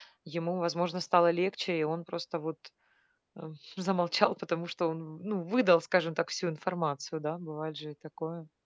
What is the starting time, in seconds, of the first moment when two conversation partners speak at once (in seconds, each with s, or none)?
none